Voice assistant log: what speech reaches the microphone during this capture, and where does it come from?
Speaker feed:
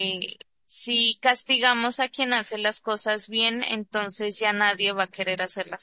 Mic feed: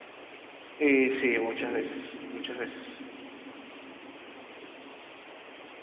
user only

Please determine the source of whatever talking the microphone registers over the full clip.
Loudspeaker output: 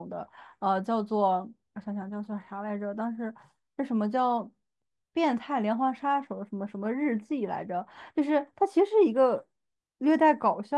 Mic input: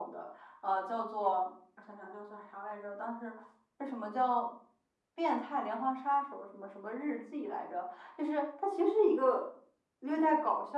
echo only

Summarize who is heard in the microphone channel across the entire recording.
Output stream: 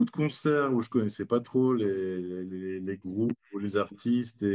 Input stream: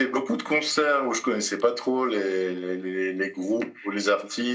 echo only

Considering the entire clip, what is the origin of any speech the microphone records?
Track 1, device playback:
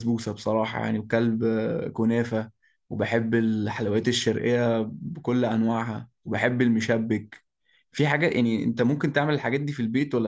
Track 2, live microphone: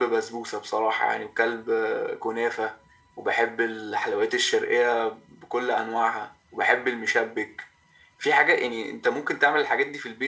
echo only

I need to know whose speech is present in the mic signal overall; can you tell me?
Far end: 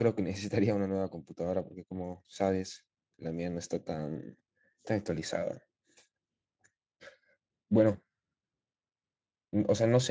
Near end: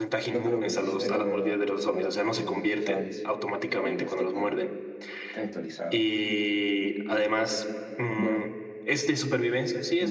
both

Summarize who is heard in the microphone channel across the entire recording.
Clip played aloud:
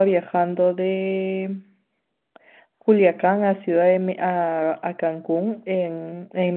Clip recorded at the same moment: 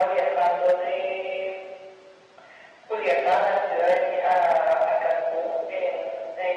echo only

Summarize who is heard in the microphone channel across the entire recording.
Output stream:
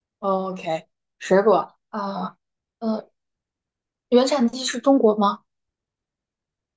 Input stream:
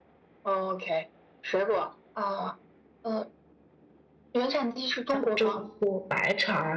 both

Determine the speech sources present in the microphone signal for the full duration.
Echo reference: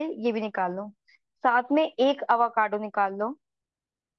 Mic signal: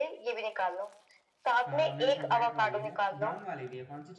both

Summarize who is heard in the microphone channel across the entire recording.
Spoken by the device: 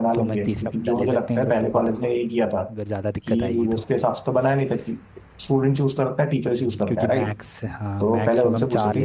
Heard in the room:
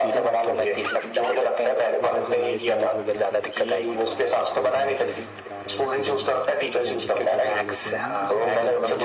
both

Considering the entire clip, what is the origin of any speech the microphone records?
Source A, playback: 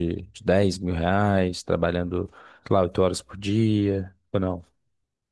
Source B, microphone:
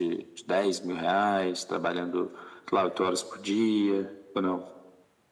echo only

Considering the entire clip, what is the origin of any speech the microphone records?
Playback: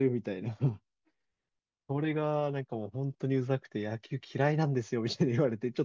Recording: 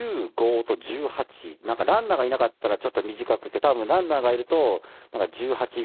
user only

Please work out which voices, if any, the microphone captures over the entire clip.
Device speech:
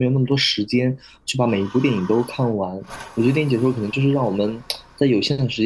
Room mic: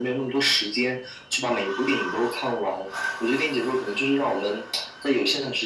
echo only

